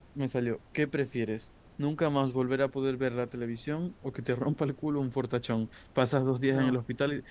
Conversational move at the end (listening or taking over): listening